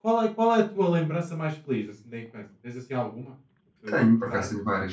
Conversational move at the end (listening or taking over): taking over